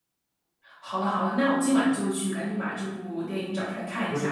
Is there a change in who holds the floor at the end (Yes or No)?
Yes